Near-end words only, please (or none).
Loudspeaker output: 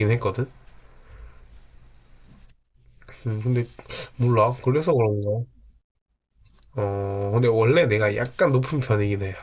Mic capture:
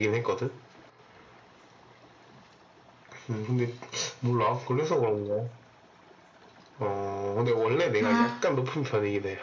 아,